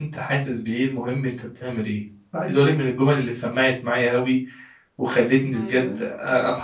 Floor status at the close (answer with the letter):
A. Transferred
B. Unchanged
B